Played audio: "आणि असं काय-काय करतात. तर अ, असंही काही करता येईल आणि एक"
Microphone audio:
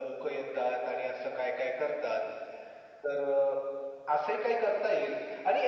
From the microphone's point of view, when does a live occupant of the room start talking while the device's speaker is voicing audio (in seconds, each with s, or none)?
none